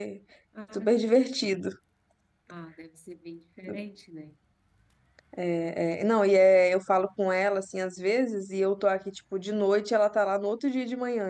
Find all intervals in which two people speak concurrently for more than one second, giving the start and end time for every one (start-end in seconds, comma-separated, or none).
none